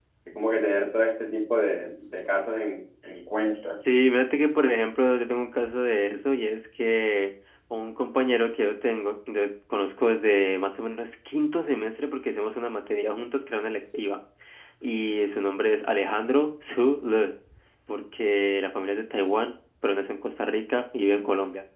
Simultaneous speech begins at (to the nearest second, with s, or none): none